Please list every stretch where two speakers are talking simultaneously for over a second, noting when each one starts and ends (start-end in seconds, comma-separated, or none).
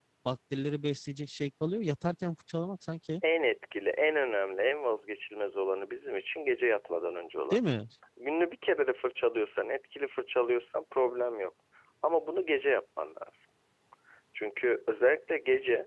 none